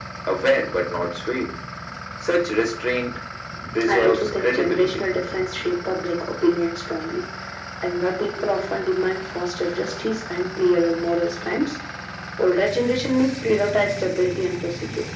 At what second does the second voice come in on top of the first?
4 s

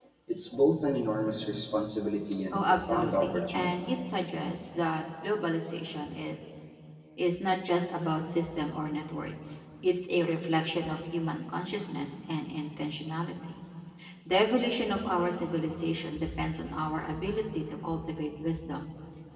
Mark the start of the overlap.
3 s

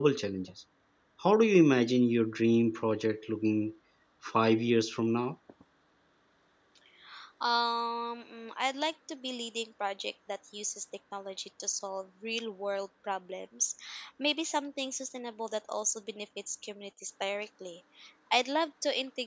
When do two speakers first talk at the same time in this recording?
none

